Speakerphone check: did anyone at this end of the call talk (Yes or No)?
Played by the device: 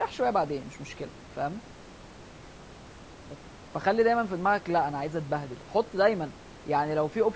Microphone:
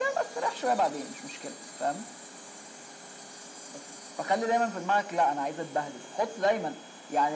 No